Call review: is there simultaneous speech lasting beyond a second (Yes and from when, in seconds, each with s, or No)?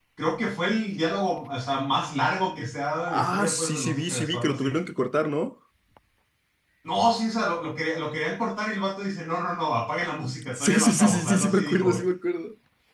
Yes, from 3.2 s